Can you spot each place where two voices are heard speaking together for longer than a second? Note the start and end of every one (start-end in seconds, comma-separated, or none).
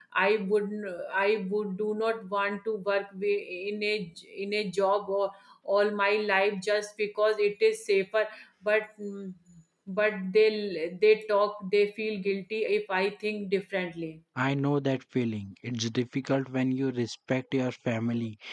none